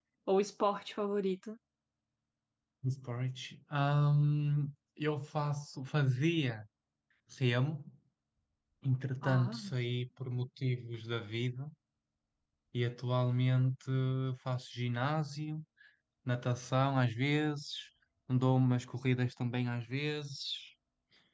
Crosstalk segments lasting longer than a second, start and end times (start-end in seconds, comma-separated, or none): none